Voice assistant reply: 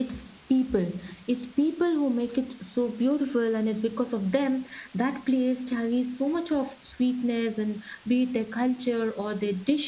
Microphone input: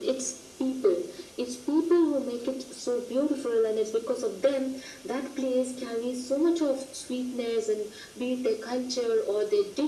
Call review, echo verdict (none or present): present